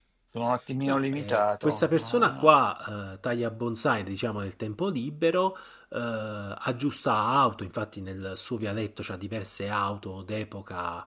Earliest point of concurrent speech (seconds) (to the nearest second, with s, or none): 1 s